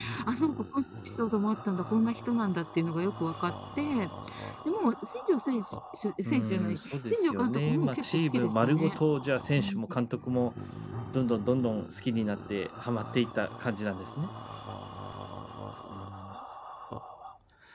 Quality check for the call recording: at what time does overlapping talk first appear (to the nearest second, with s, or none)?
6 s